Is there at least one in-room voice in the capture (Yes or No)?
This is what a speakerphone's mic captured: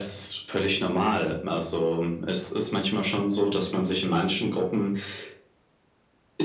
No